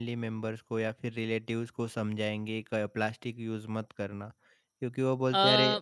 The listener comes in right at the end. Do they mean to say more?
No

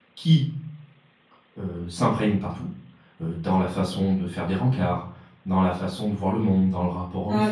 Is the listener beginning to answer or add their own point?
Yes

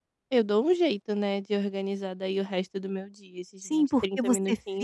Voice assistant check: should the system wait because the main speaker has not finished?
No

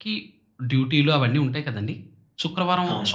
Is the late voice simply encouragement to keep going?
Yes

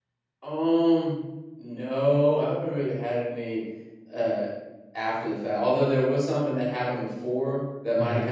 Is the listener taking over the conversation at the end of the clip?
No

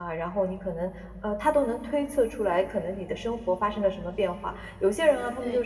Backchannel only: Yes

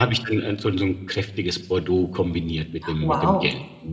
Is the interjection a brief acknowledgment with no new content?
No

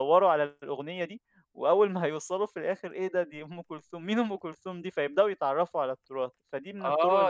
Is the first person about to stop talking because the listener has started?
Yes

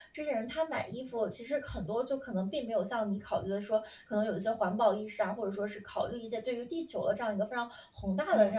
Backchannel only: Yes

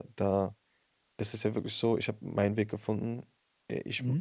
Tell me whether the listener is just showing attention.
Yes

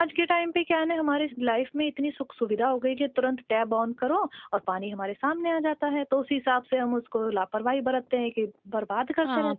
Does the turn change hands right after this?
Yes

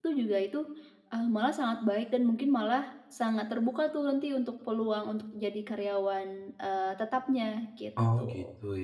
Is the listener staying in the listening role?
No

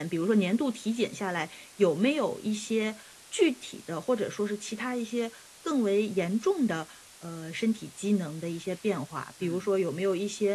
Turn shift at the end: No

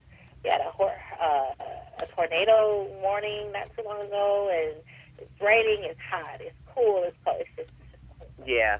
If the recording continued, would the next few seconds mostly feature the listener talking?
Yes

